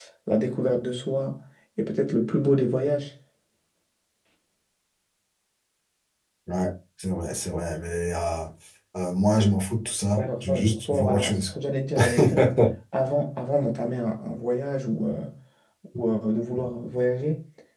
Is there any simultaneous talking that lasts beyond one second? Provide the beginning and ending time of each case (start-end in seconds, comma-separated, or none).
10.2-11.5